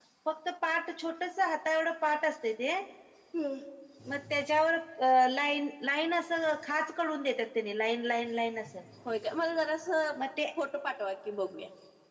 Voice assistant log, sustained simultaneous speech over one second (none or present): none